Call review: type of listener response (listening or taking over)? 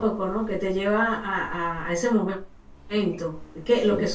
listening